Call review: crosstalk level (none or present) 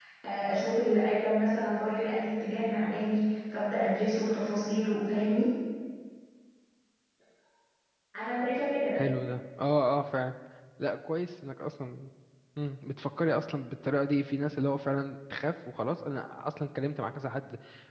none